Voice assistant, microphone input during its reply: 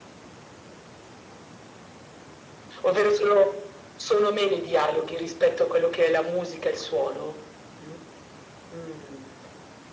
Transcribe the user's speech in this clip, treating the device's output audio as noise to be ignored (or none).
none